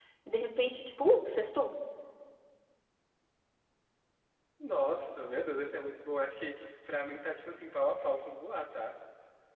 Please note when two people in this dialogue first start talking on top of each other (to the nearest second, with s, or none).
none